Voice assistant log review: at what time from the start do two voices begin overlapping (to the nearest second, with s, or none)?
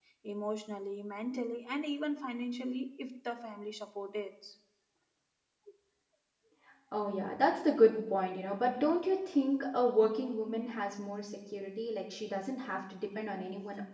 none